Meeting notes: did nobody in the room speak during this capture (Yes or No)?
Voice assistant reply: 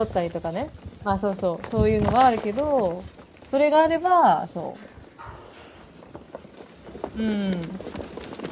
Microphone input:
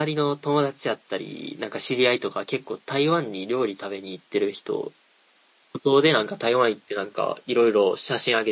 No